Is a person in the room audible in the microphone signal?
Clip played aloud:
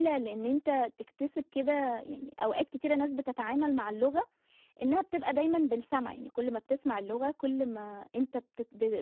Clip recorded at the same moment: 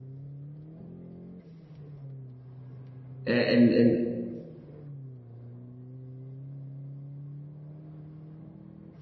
Yes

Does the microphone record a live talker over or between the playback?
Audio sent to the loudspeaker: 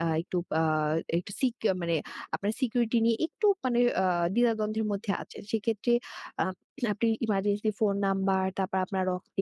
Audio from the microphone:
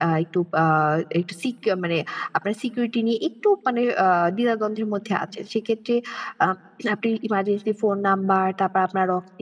No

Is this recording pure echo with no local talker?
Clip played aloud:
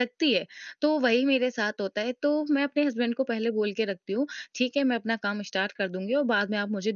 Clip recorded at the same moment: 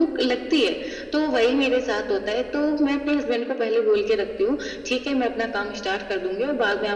Yes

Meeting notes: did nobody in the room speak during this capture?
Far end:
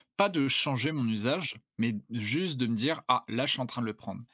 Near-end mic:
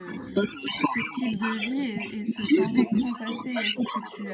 No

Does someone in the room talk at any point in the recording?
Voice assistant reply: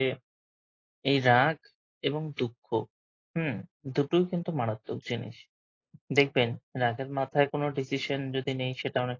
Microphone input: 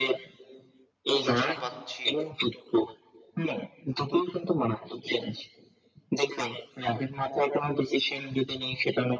Yes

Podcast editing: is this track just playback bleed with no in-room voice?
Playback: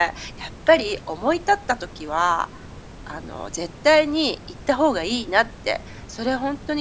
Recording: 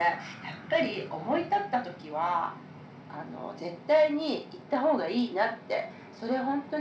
Yes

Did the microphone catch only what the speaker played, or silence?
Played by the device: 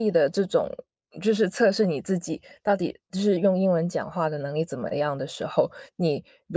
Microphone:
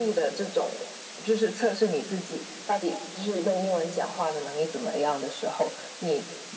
Yes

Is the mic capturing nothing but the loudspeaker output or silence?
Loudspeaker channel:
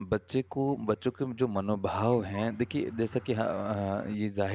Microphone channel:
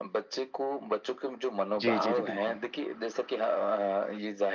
No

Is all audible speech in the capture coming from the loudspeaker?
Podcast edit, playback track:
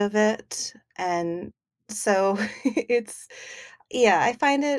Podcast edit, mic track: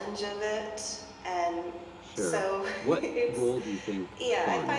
No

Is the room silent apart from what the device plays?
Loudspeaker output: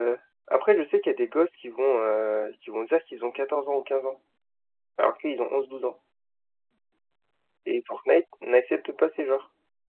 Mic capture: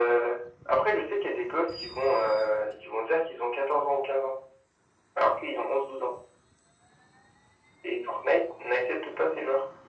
Yes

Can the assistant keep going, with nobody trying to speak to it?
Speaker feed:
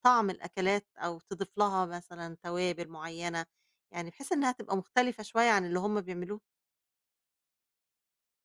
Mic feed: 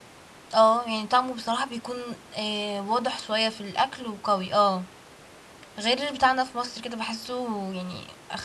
No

